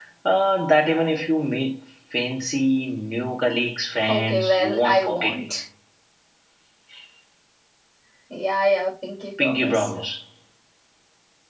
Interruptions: present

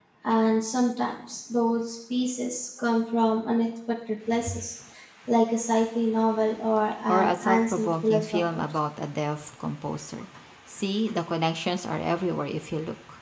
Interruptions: present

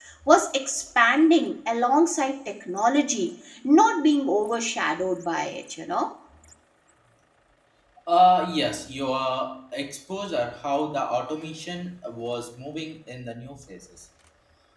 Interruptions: none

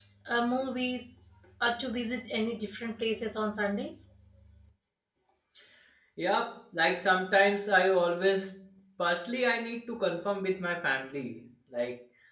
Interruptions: none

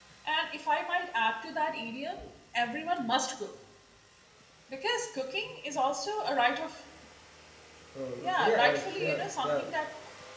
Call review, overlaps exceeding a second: present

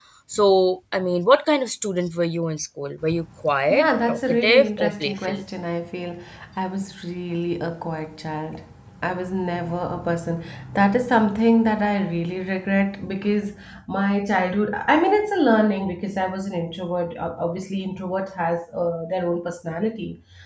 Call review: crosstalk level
present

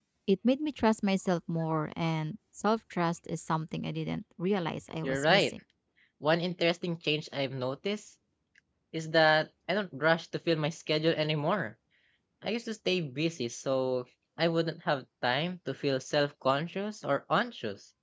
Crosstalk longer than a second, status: none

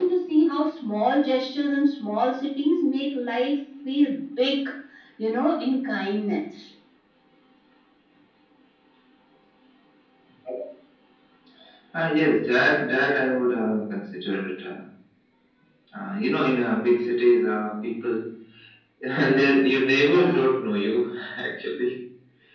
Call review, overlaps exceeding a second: none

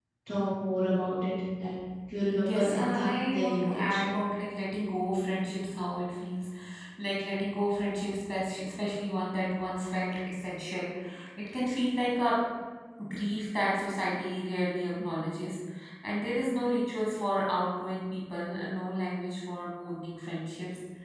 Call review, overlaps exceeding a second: present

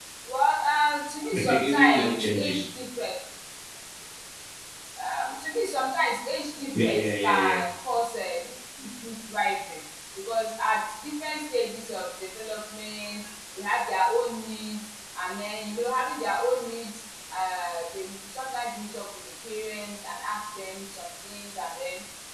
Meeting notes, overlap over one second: present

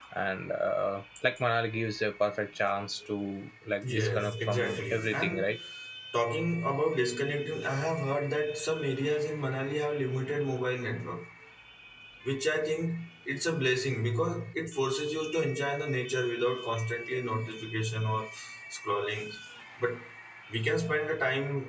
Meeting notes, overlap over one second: present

